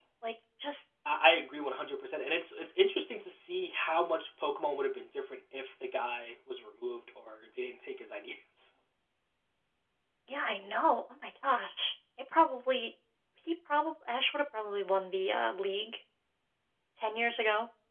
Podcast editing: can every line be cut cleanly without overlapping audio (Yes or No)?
Yes